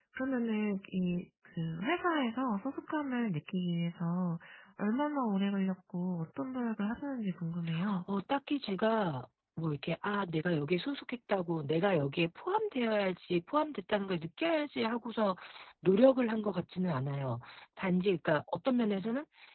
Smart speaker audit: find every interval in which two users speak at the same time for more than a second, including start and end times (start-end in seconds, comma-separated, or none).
none